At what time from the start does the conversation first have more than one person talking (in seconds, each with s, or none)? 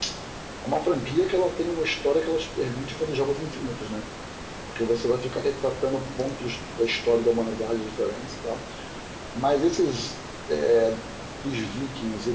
none